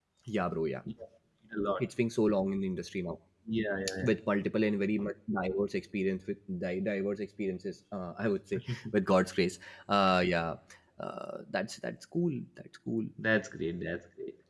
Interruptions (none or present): none